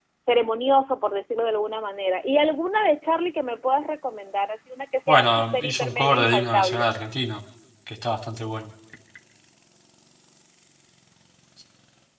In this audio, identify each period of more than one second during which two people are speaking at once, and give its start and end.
5.1-6.8

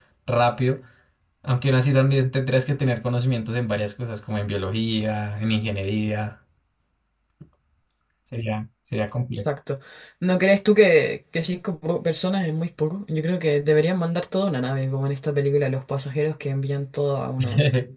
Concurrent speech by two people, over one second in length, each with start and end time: none

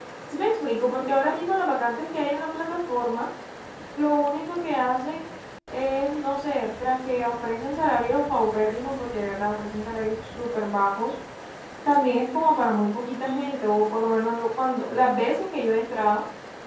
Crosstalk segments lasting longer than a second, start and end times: none

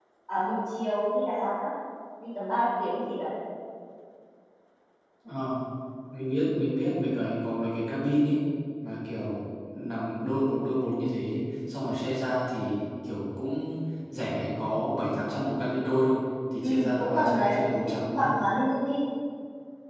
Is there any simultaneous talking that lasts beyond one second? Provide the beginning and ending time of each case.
16.6-18.3

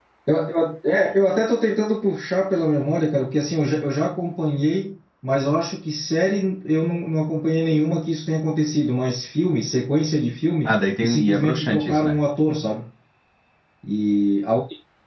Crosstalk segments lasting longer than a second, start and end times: 10.7-12.2

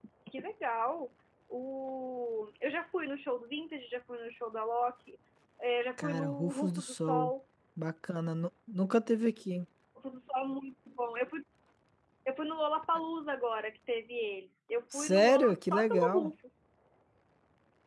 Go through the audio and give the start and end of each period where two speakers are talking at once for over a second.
6.0-7.3, 14.9-16.3

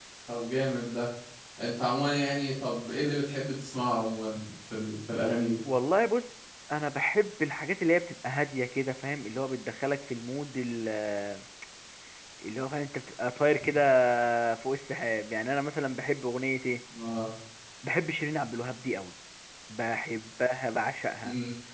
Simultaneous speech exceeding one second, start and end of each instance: none

